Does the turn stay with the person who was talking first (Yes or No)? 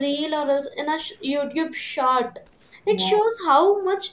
Yes